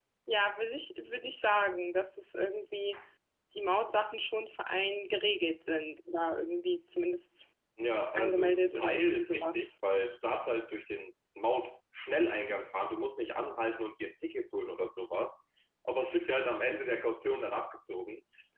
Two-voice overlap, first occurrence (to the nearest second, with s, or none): 8 s